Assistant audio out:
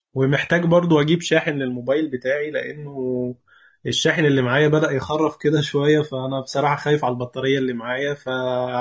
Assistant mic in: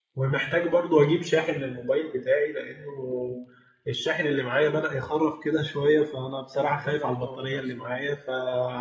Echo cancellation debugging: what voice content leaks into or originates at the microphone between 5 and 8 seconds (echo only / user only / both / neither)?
both